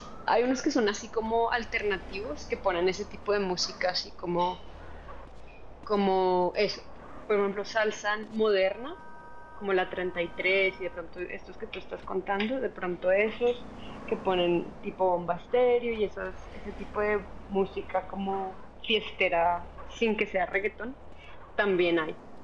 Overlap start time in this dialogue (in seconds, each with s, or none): none